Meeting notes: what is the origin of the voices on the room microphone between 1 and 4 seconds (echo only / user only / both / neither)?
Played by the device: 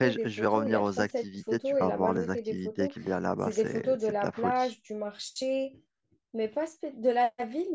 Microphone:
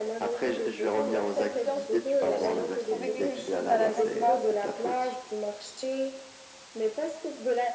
both